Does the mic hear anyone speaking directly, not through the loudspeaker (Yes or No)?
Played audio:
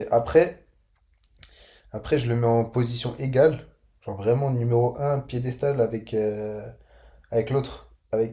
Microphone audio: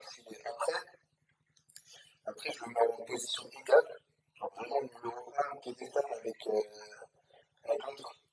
No